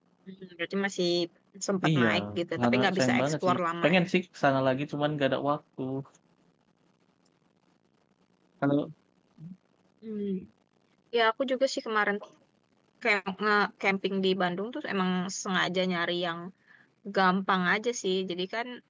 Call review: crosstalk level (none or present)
present